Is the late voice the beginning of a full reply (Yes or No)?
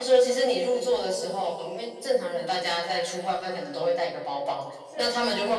No